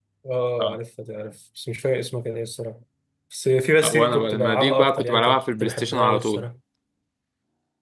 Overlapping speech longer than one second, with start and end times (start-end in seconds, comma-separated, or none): 3.9-6.4